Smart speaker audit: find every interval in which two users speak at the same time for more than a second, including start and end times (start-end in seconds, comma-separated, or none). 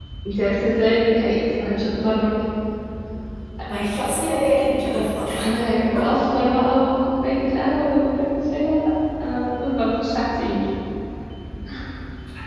none